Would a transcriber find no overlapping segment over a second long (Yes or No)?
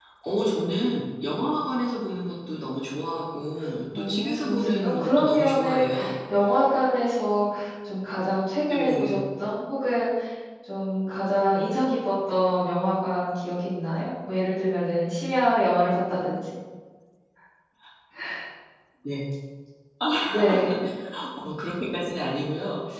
No